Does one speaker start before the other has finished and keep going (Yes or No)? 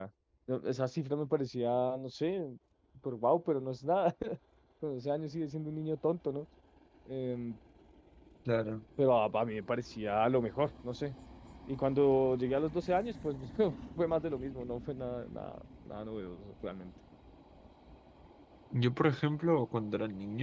No